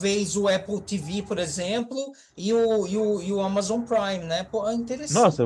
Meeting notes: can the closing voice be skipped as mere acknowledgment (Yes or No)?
No